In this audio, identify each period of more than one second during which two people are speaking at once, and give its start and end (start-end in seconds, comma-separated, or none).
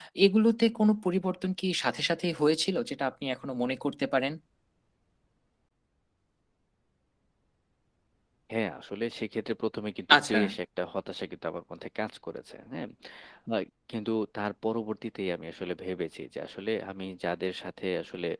none